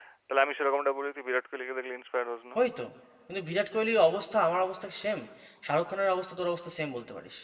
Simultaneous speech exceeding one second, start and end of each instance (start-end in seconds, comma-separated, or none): none